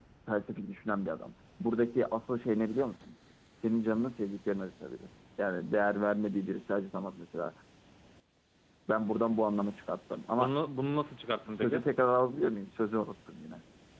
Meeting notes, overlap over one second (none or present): none